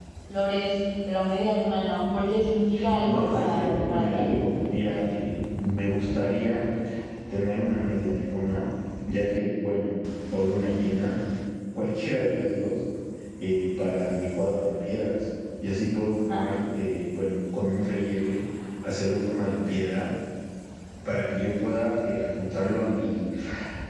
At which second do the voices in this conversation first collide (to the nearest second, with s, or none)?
3 s